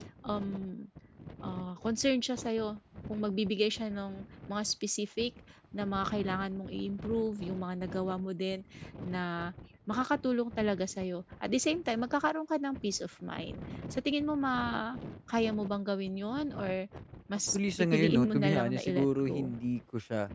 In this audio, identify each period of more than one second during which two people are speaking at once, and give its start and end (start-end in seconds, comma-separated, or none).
17.5-19.5